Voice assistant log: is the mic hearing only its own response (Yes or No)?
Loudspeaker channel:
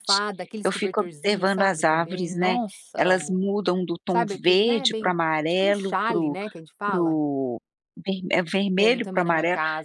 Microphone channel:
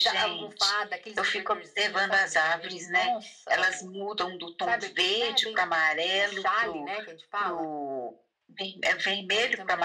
Yes